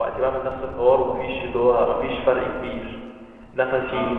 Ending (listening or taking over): listening